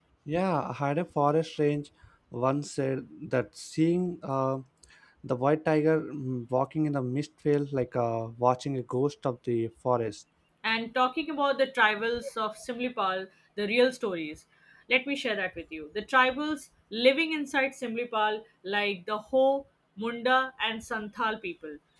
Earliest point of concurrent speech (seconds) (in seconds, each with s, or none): none